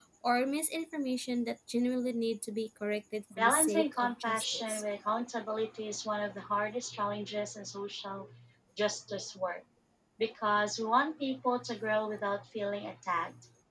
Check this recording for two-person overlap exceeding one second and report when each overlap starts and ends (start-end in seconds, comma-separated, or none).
3.4-4.8